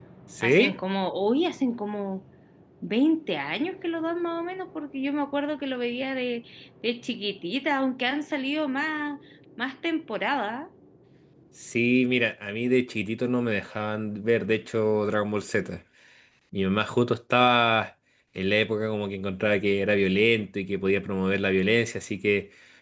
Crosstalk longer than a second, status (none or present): none